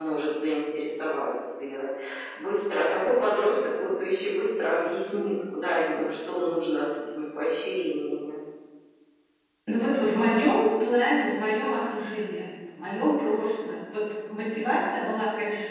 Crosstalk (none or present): none